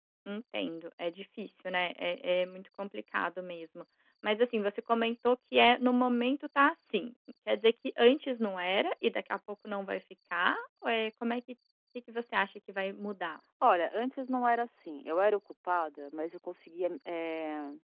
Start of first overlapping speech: none

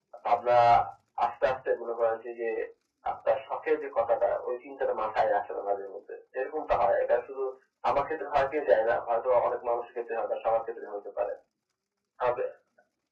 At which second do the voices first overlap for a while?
none

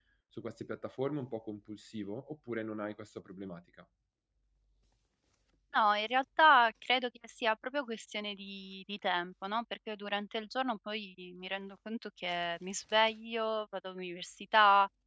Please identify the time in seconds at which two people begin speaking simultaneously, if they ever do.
none

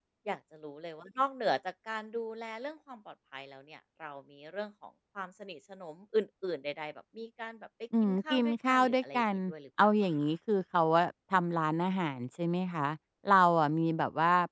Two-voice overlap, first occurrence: 8.0 s

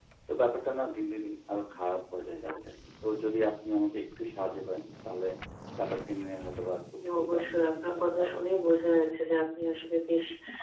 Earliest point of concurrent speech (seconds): 7.0 s

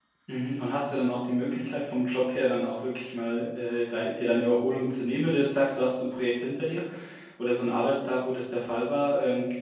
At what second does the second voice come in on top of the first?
none

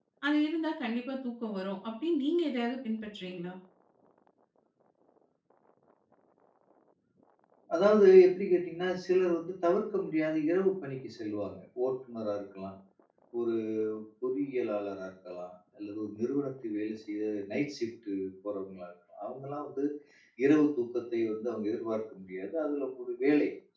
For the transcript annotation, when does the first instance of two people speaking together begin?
none

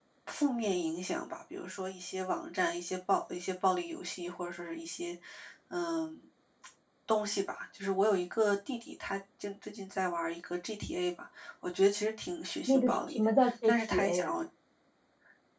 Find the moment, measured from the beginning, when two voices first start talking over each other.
12.7 s

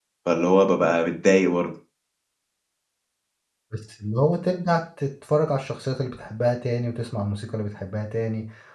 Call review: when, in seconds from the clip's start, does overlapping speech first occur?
none

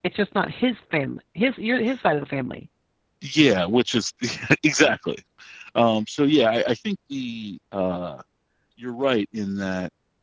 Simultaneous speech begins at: none

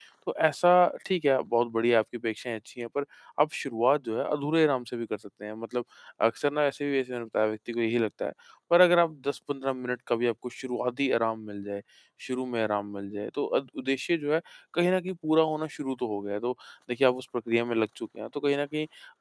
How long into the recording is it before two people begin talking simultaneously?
none

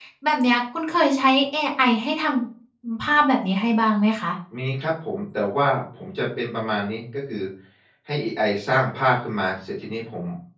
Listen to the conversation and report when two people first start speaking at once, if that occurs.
none

